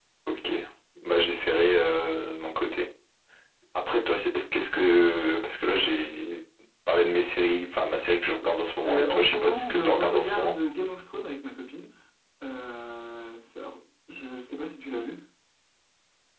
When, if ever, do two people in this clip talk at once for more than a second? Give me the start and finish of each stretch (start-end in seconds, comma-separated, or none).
8.9-10.5